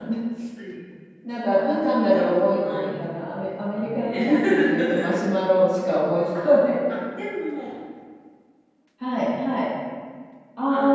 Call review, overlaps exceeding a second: present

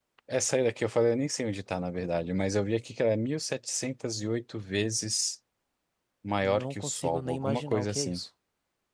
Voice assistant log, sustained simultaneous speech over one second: present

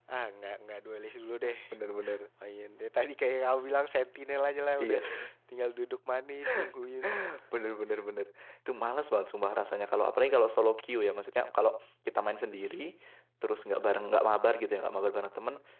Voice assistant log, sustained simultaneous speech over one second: none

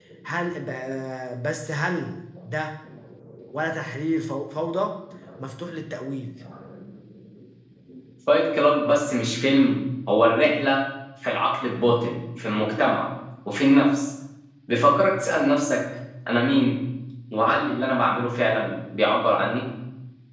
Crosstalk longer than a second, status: none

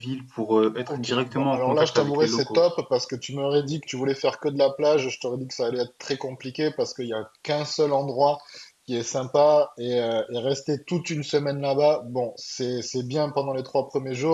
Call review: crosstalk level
present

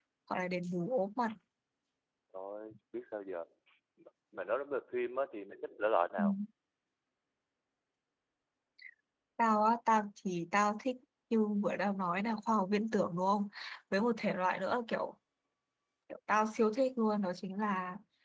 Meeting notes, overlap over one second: none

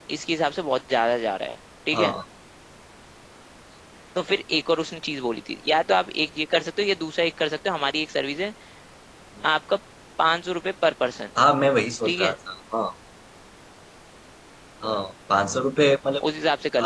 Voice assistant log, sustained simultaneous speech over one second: none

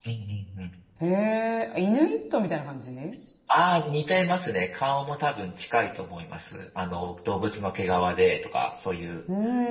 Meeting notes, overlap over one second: none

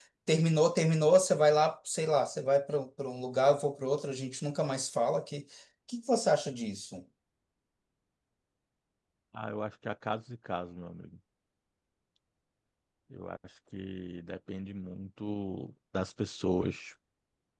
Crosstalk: none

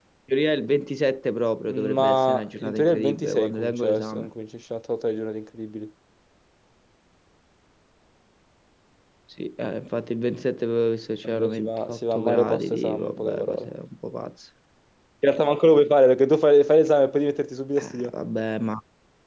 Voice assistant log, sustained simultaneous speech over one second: present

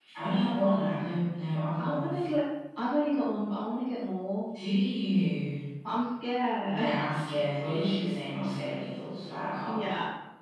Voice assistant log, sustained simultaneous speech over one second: none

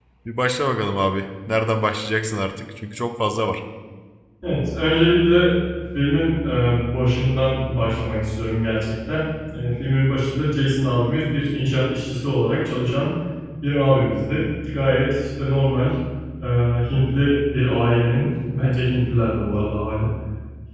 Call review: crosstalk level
none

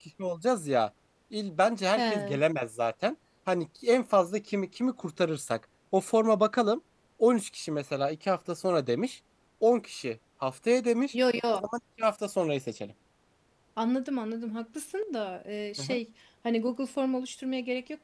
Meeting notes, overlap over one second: none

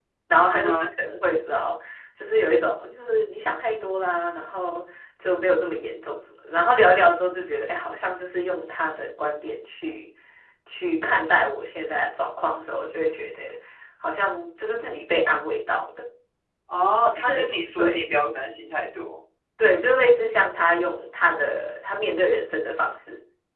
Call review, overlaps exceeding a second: none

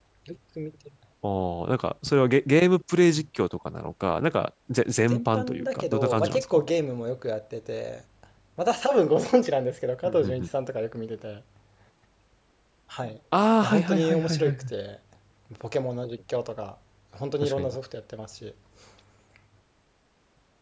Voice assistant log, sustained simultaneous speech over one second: present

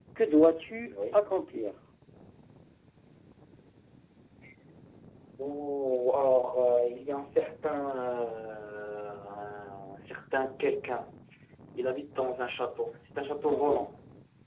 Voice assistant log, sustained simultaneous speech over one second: none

